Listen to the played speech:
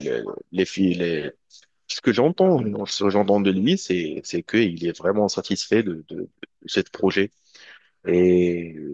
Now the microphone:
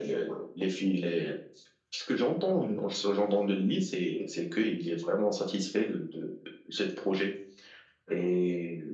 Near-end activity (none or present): none